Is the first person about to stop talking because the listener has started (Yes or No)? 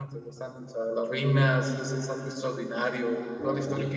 No